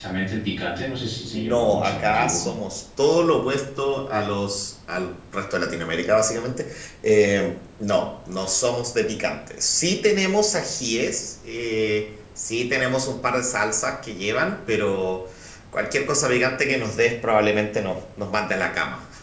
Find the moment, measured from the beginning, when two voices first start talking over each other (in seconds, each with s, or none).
1.3 s